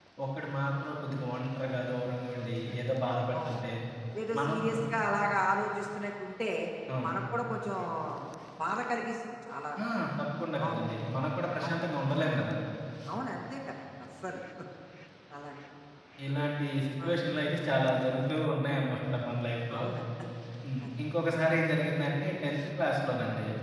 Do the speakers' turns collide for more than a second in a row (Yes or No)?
No